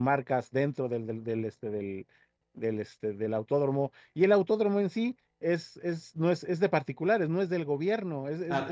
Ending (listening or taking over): listening